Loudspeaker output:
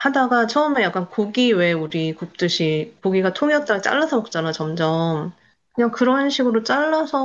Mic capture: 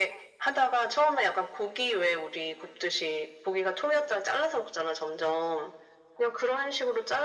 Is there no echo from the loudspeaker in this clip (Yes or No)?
No